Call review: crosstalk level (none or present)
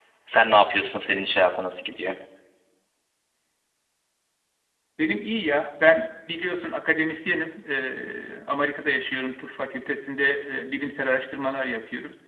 none